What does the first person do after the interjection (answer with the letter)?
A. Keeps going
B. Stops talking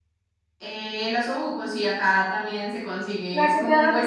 B